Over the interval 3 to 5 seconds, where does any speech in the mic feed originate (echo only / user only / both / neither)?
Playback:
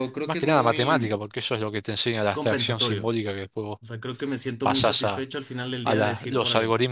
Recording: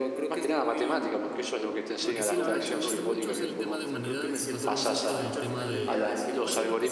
both